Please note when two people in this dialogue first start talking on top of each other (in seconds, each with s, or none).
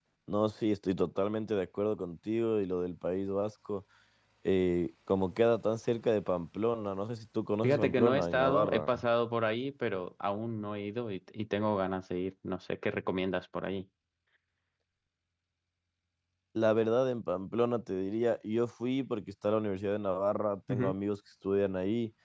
7.6 s